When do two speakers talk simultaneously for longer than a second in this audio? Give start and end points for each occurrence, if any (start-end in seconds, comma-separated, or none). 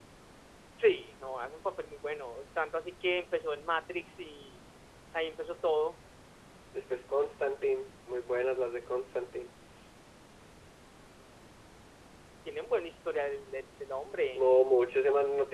none